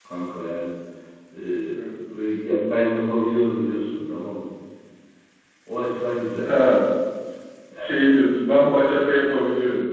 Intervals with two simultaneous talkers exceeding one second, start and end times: none

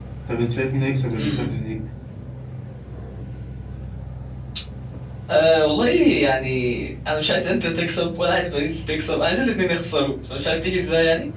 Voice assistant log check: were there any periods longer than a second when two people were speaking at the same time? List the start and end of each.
none

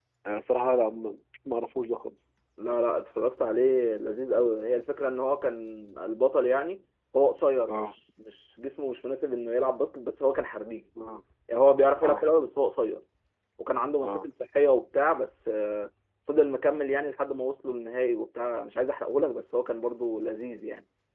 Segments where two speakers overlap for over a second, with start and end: none

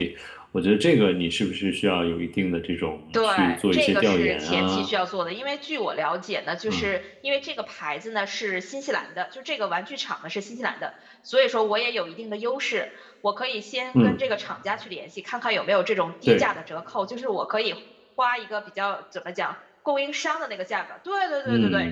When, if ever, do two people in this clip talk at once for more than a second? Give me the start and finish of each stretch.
3.1-4.9

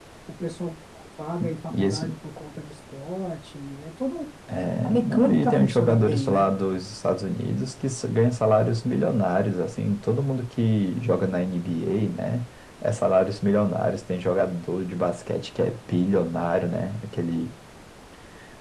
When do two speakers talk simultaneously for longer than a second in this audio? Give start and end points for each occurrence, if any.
4.8-6.5

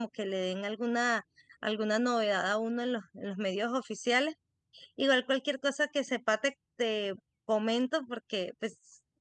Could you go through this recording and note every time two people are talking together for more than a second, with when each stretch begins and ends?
none

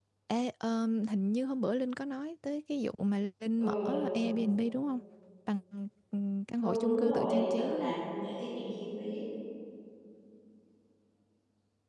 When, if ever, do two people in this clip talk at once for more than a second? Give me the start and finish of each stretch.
6.6-7.9

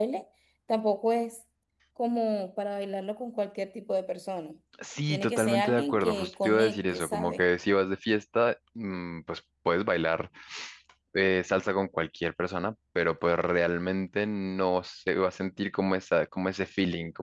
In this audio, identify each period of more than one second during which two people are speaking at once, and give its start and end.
5.1-7.4

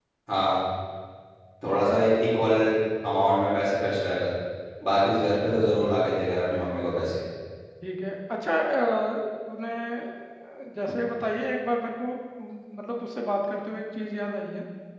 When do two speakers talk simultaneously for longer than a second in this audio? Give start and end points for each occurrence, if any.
none

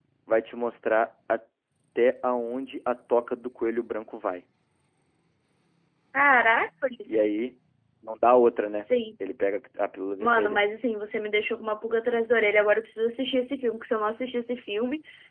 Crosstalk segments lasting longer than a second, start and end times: none

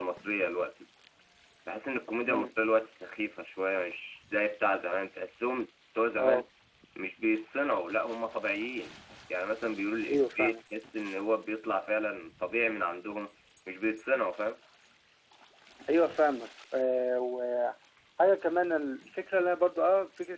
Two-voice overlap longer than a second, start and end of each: none

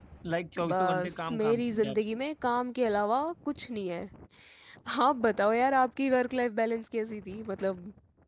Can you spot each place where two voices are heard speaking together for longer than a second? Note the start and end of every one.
0.7-2.0

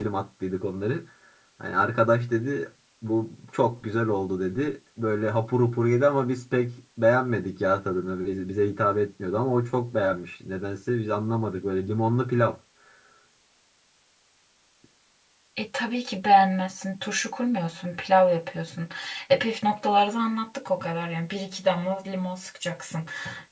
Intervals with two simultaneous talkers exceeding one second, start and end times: none

